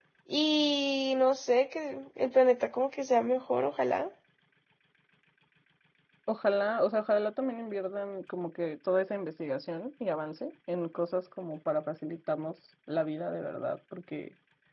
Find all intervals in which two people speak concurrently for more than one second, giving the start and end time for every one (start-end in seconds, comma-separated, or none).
none